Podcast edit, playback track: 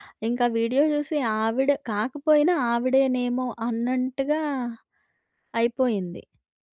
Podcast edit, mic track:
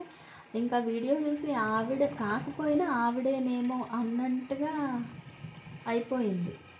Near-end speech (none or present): none